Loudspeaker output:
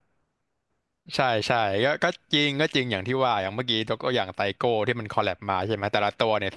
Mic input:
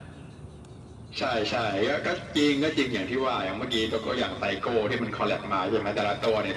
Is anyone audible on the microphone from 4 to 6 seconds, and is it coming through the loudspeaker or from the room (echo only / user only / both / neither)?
echo only